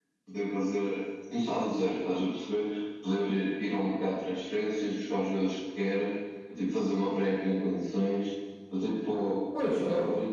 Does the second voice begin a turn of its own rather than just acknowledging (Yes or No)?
No